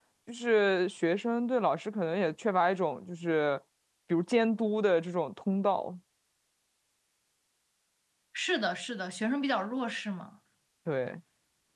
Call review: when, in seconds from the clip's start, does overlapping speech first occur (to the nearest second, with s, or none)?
none